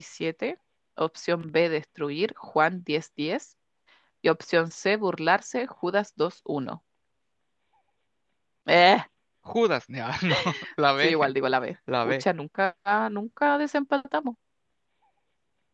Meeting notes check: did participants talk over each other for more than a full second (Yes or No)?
No